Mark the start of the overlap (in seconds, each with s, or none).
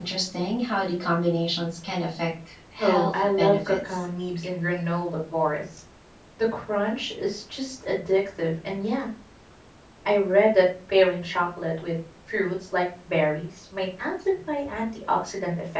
2.8 s